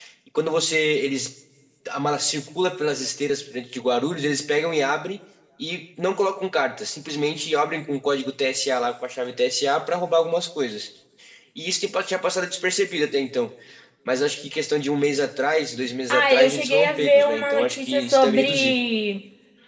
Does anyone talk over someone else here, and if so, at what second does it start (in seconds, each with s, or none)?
16.1 s